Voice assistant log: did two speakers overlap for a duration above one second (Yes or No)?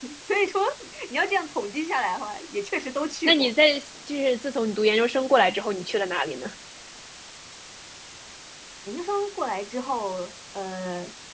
No